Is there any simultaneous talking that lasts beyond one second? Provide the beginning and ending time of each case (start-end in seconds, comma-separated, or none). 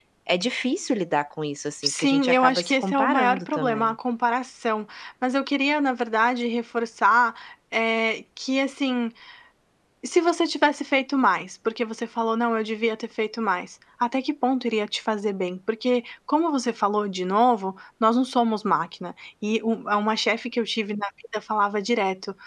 1.8-3.9